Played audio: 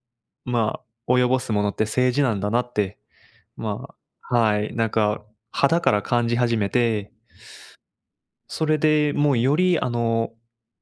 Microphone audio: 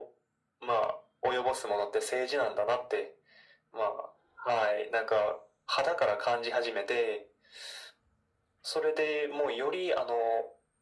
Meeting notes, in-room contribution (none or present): none